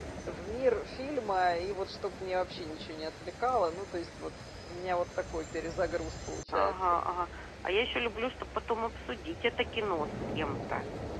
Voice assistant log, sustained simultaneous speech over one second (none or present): none